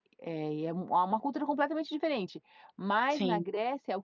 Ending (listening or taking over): listening